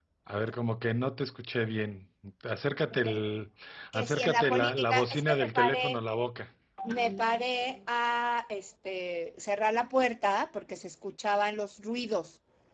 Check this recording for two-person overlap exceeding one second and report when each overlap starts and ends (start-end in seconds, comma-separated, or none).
3.9-6.0